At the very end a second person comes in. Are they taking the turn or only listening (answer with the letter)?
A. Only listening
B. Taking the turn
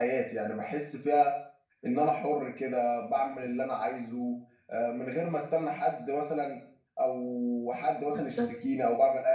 A